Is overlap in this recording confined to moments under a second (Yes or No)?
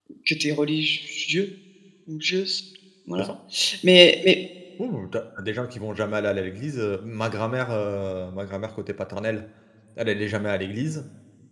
Yes